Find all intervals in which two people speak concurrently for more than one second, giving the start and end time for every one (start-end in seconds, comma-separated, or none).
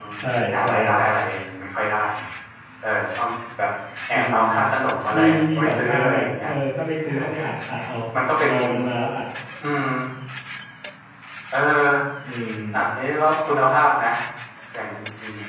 5.2-6.5